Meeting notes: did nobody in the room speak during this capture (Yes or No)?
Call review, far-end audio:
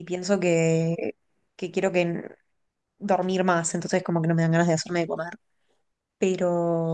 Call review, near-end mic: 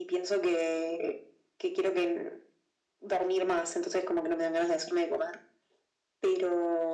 Yes